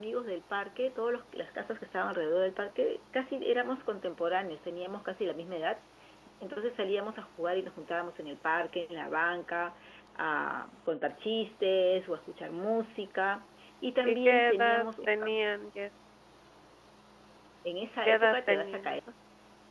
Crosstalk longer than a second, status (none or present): present